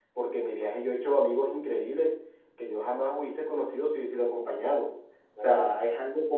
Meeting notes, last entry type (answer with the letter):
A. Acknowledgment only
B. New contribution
A